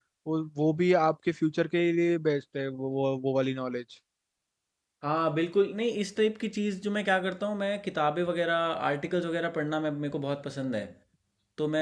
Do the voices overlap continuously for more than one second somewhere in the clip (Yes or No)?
No